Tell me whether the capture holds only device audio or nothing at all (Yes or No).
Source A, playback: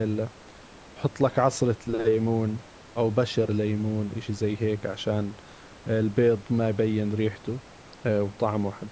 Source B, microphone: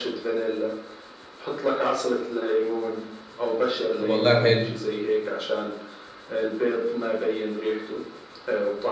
No